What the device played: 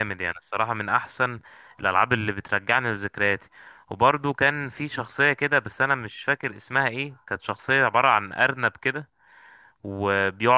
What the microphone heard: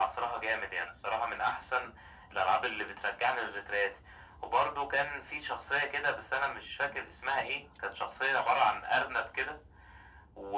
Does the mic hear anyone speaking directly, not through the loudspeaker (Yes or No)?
No